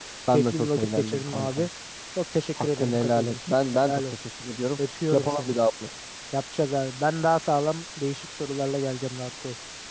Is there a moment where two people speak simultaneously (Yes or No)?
Yes